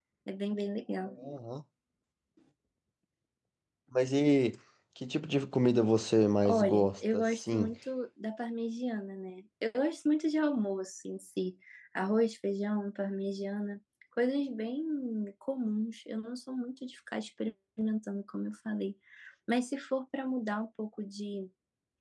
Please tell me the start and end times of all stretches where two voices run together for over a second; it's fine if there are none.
6.5-7.7

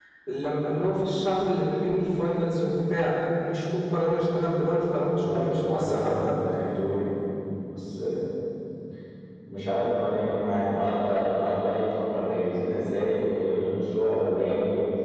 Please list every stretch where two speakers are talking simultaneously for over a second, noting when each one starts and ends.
5.1-6.3

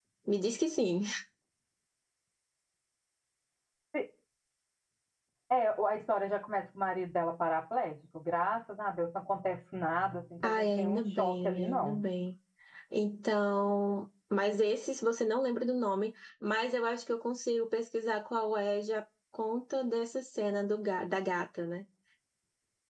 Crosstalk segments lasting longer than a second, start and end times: 10.4-12.0

